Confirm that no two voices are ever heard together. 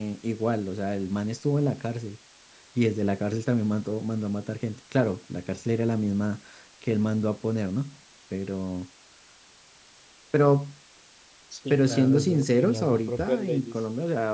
No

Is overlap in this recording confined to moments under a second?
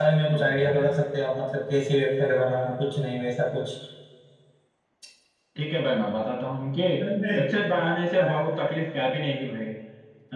Yes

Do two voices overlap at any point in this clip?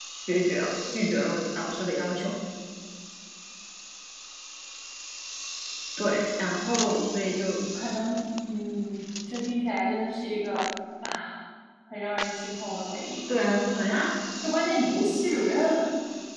No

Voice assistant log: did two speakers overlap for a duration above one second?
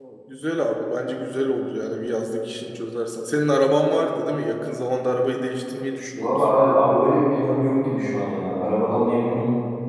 No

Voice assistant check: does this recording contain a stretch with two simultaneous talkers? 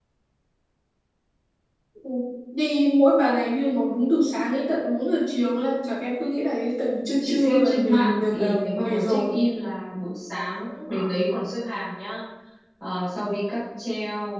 Yes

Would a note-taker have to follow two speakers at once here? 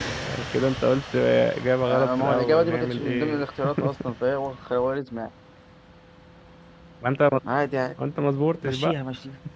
Yes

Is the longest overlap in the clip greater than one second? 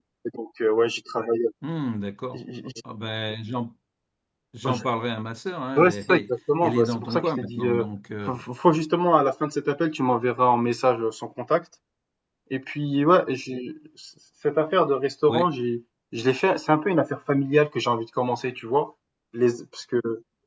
Yes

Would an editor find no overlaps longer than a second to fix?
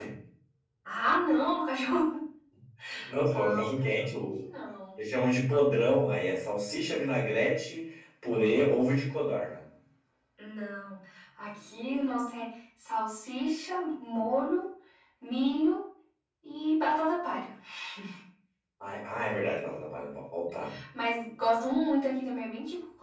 No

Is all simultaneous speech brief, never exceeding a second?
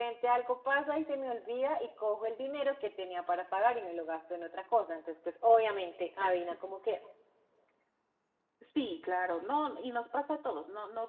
Yes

